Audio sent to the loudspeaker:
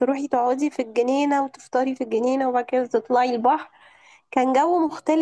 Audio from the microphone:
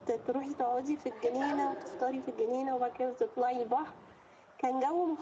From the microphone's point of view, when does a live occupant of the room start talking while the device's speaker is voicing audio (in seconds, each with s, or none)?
1.1 s